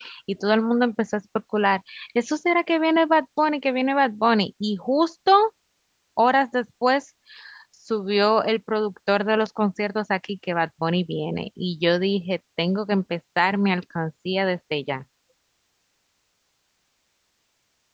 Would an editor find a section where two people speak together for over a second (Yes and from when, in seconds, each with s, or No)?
No